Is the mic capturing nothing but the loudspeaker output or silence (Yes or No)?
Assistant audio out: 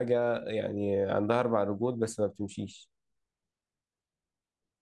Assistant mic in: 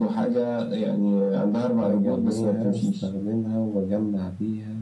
No